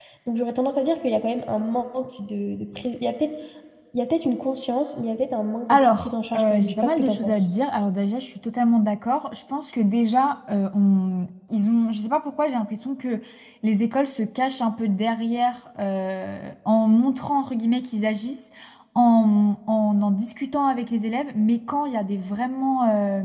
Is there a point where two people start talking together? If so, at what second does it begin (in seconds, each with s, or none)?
5.7 s